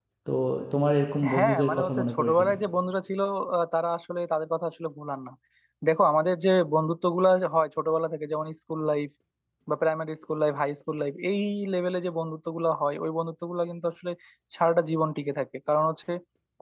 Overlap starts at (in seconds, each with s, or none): 1.3 s